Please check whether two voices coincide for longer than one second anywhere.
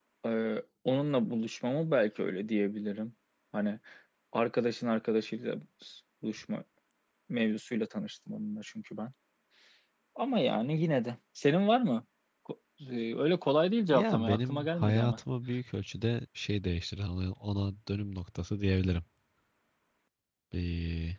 Yes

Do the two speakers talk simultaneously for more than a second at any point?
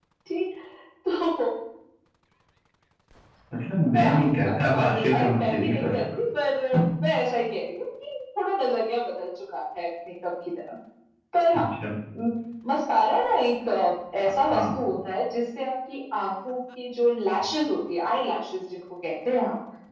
Yes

